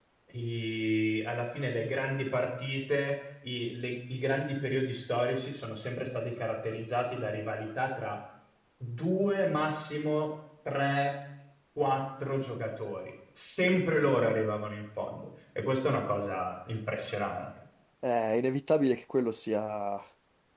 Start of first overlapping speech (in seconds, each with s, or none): none